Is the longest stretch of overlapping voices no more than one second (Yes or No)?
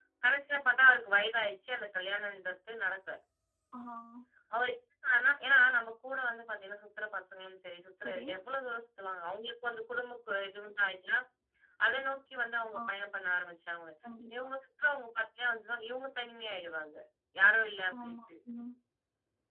Yes